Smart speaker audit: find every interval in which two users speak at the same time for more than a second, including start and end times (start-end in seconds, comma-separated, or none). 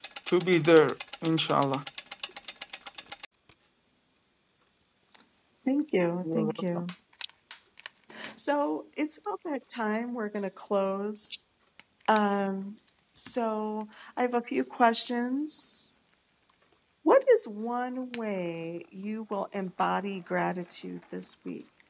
none